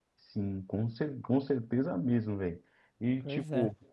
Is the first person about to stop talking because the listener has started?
No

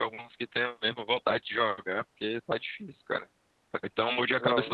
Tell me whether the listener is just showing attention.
Yes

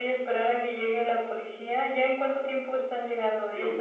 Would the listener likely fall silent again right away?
No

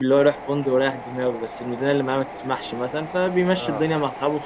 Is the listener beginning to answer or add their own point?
No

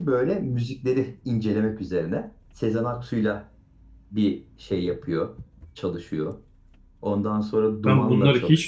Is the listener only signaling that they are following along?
No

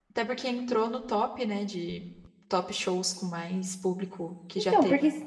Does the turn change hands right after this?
Yes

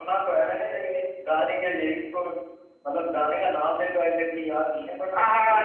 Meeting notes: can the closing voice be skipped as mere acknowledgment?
No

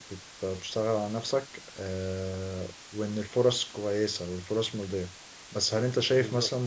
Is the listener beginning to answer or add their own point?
No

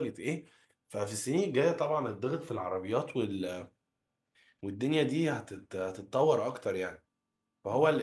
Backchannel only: Yes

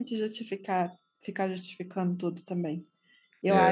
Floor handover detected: No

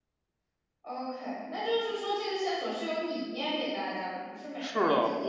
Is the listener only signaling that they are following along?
No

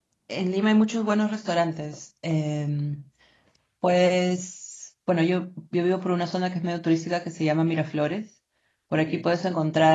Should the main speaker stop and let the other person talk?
No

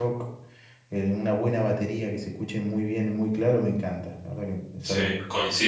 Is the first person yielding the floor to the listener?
Yes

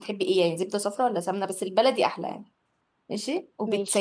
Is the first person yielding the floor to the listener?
No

